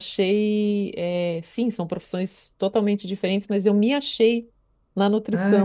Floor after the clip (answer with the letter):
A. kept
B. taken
B